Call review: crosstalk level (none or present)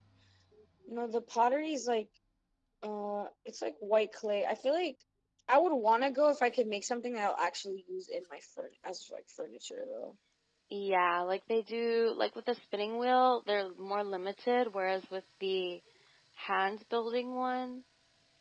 none